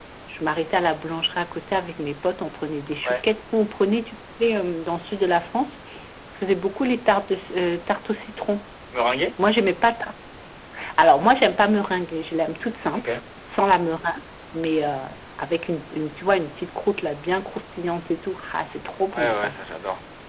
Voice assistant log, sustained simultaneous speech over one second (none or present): none